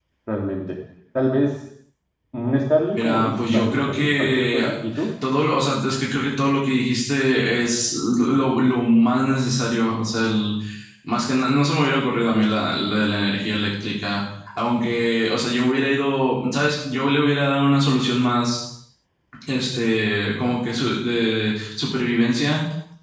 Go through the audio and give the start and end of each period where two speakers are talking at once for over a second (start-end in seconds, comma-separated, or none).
2.9-4.7